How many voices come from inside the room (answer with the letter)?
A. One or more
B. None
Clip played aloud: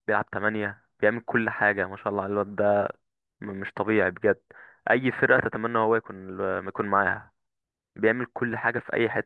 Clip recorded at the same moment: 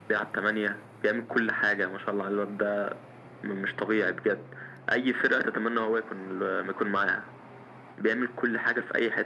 B